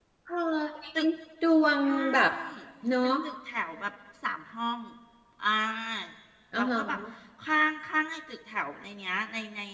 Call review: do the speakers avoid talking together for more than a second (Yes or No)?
Yes